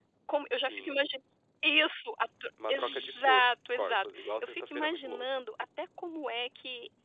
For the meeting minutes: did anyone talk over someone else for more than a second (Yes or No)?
Yes